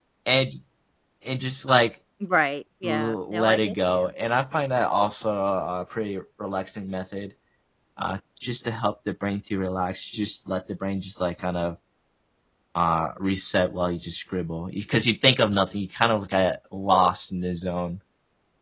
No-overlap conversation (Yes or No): No